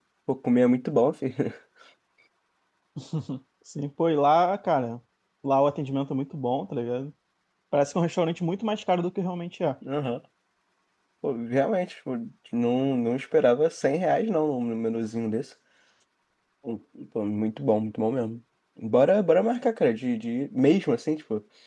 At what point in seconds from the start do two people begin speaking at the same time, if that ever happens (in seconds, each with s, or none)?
none